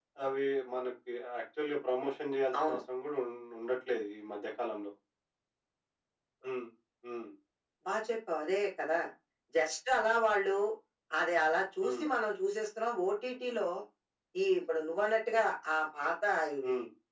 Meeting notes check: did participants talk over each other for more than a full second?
No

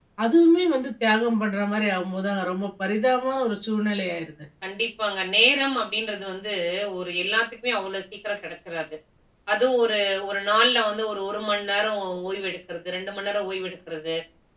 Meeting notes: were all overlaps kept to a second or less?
Yes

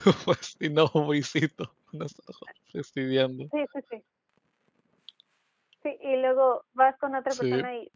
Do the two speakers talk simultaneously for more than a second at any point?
No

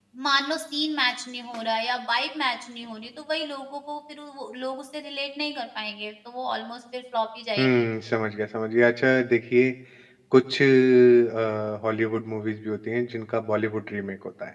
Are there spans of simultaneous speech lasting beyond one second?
No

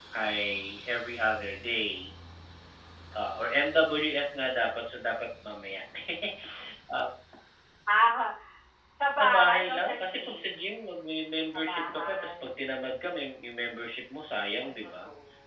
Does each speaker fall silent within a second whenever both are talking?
No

